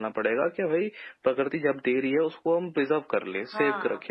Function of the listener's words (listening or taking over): listening